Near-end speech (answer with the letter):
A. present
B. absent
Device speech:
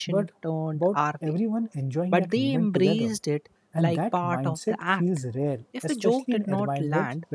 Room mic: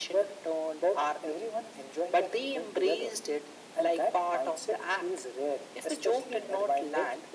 B